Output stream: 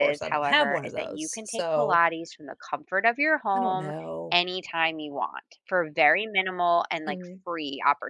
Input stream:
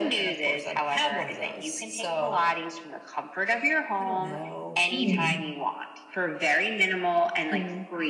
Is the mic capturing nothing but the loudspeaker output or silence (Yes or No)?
No